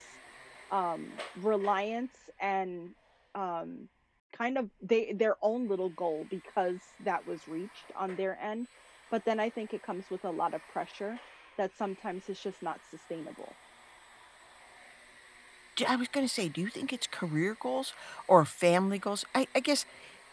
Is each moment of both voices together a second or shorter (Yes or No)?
Yes